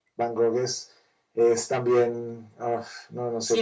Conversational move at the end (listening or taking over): taking over